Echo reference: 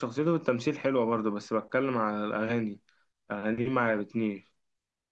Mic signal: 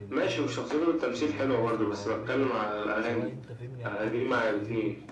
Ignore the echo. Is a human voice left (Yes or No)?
Yes